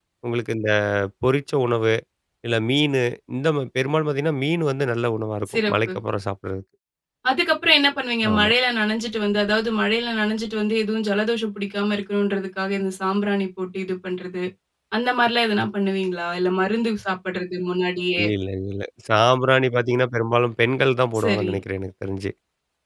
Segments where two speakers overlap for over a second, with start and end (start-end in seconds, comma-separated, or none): none